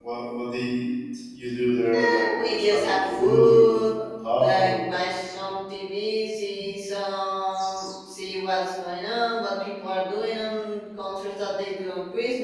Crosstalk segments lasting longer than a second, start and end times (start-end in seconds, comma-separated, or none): 2.0-3.8